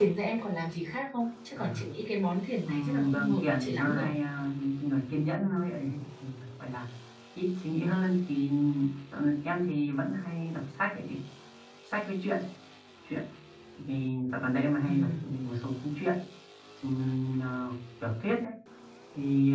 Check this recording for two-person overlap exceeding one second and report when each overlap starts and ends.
2.6-4.1

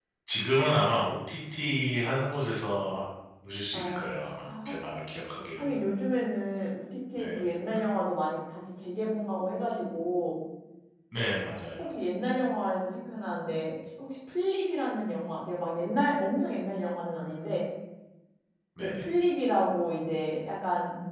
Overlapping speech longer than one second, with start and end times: none

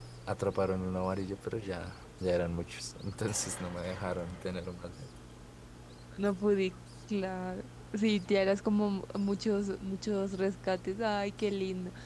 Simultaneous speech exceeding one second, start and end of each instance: none

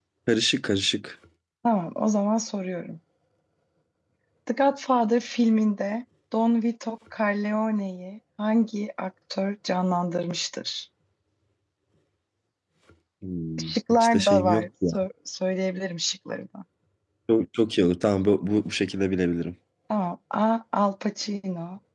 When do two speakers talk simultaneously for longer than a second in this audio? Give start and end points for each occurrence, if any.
13.6-15.1

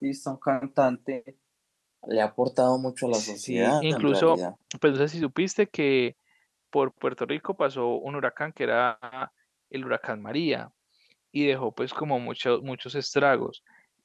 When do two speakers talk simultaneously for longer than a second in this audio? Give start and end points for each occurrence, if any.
3.1-4.4

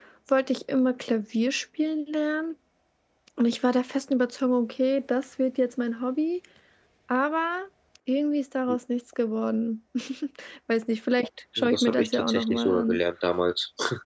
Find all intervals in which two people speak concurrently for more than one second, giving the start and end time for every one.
11.6-13.0

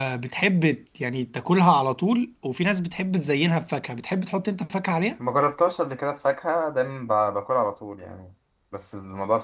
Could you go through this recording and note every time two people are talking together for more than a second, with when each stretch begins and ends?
none

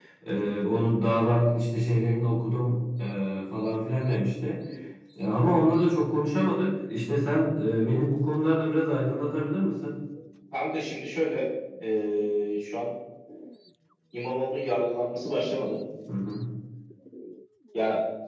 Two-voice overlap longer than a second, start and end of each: none

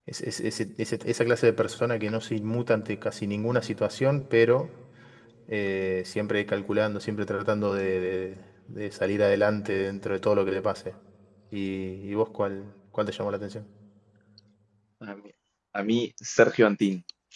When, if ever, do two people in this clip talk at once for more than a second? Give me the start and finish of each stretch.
none

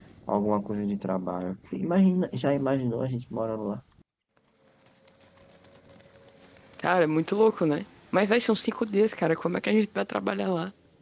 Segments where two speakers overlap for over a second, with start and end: none

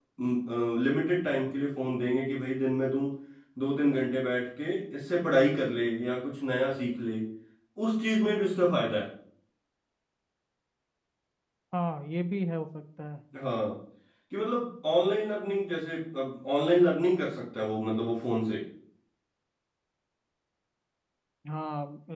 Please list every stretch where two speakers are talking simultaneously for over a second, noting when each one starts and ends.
none

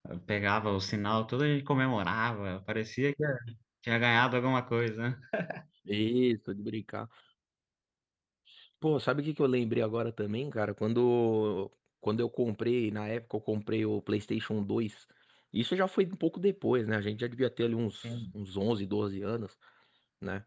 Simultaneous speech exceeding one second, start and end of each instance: none

